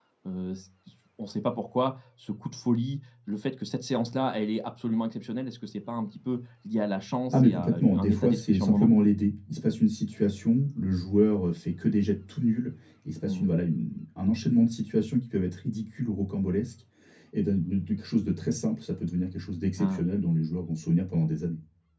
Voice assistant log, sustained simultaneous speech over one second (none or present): present